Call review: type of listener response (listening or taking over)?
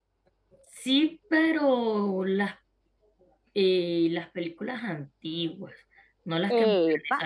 taking over